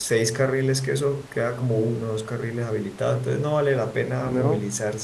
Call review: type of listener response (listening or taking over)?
listening